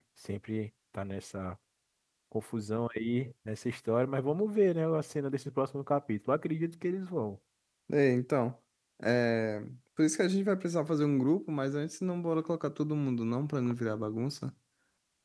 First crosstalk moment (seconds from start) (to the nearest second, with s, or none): none